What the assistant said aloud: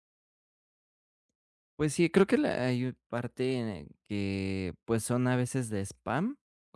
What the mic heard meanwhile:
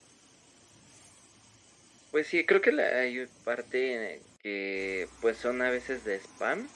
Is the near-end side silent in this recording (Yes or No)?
Yes